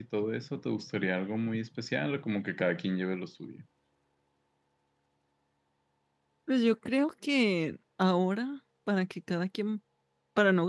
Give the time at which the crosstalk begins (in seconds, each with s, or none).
none